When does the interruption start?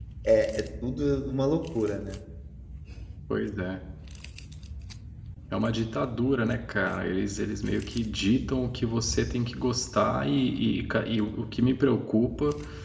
none

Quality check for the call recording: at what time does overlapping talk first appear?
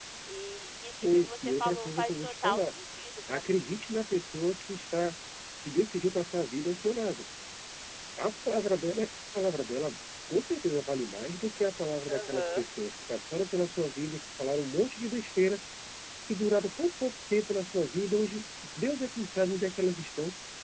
1.0 s

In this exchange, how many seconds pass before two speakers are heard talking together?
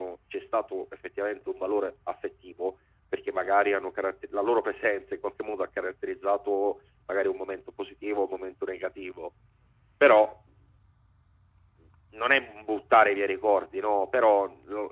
none

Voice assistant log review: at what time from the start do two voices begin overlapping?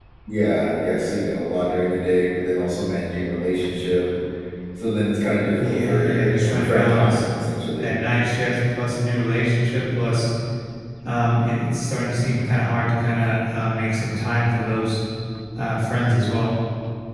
5.6 s

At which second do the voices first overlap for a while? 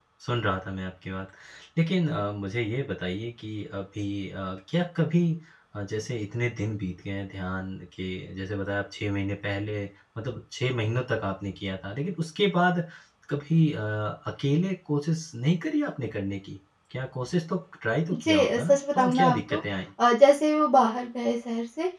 18.1 s

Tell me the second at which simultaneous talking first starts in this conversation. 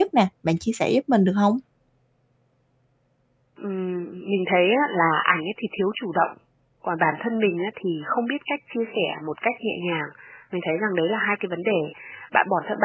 none

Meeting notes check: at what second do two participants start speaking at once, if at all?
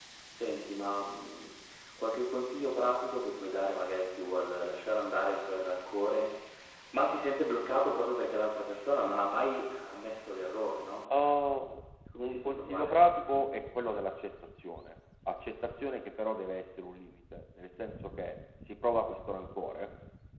12.2 s

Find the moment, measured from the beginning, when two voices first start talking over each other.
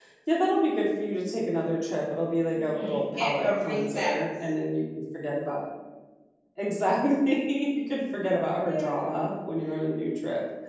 2.5 s

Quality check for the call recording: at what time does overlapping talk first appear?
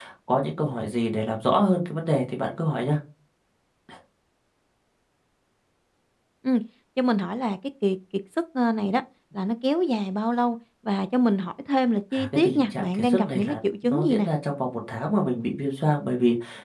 12.1 s

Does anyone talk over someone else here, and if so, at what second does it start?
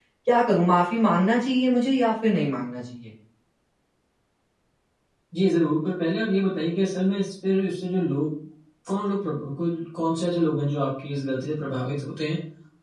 none

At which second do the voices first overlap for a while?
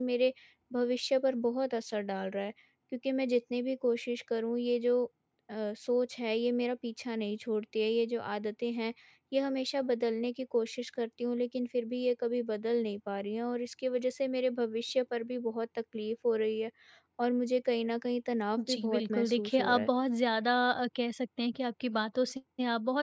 18.6 s

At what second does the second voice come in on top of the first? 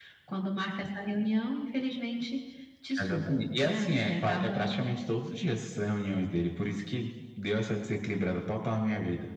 3.0 s

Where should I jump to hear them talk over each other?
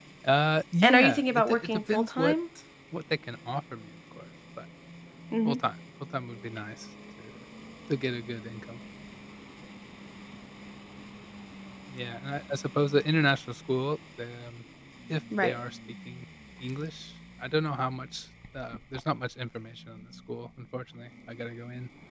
0.8 s

